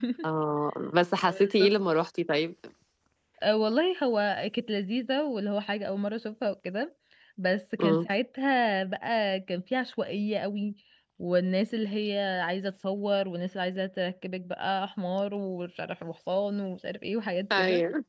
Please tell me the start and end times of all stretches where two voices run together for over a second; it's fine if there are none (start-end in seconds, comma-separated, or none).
none